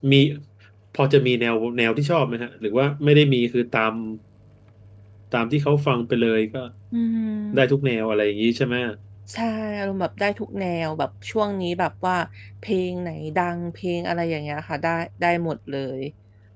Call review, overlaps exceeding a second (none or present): none